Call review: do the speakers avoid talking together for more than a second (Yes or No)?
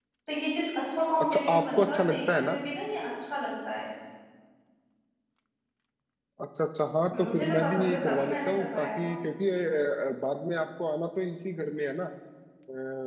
No